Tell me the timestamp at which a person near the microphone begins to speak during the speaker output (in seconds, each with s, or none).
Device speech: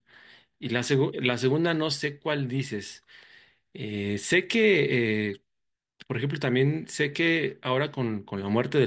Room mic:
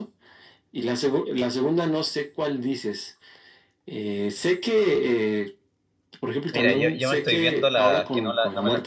6.5 s